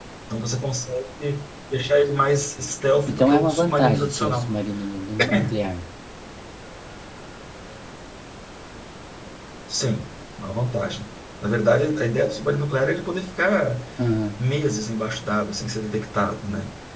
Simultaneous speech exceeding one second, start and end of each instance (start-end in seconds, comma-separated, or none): 3.1-4.5